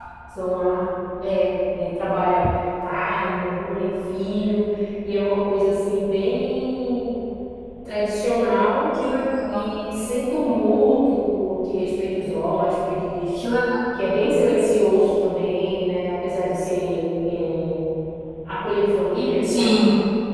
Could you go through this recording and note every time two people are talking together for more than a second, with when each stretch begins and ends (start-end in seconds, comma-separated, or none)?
none